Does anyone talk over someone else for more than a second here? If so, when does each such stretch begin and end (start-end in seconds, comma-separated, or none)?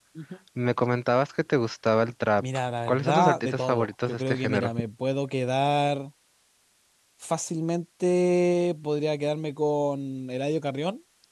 2.9-4.7